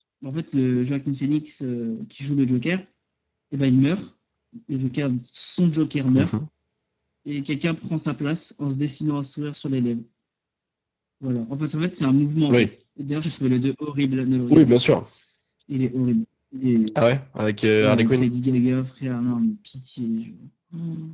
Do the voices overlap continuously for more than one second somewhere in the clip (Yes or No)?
No